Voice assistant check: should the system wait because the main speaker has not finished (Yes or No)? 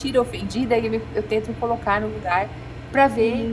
No